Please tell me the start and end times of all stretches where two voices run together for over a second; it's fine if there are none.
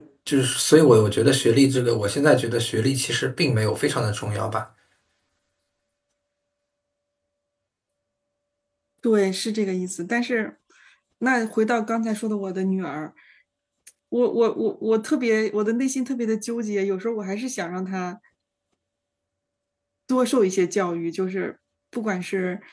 none

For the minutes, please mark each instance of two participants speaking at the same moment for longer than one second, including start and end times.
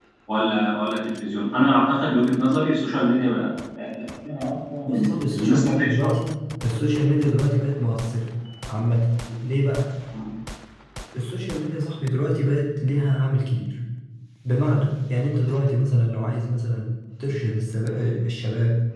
4.8-6.1

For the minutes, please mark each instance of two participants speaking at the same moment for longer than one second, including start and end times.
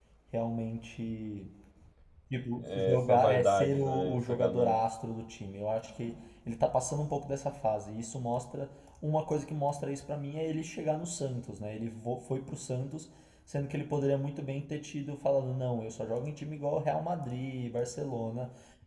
2.6-4.8

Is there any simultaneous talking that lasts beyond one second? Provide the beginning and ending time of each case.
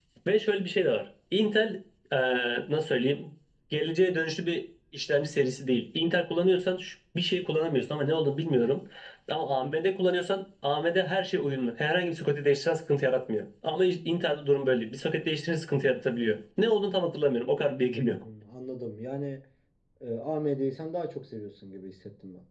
none

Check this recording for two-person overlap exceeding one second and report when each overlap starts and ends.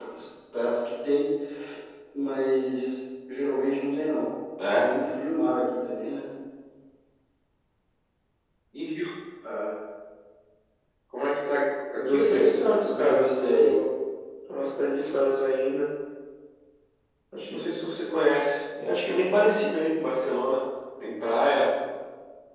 12.0-13.7

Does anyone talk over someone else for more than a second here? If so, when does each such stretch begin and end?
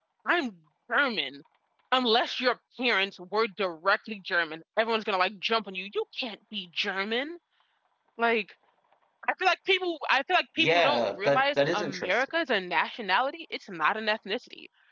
10.6-12.2

